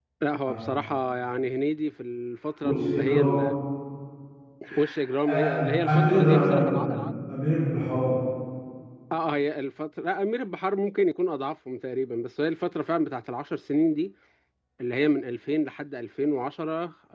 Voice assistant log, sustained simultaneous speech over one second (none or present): present